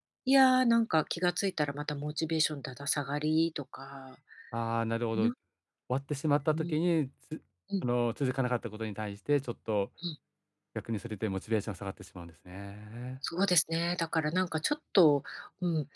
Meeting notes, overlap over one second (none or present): none